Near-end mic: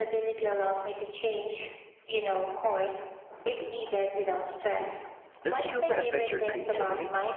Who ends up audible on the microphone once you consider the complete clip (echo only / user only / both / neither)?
both